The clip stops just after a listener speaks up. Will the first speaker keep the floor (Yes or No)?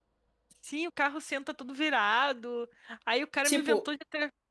Yes